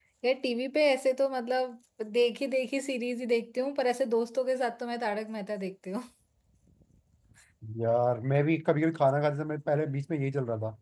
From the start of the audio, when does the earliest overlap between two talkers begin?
none

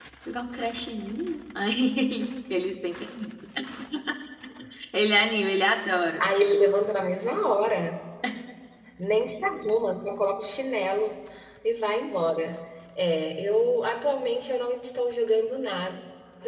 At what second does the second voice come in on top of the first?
none

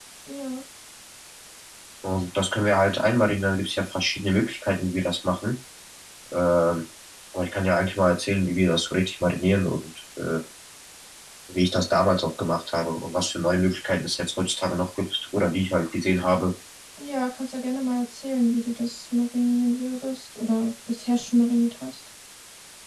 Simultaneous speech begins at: none

